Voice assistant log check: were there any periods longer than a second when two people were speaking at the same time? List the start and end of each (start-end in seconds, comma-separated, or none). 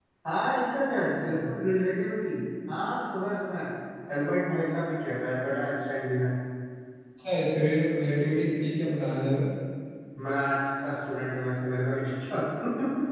none